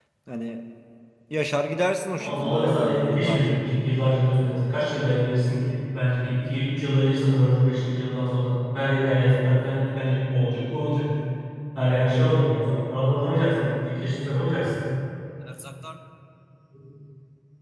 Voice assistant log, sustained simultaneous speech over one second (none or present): present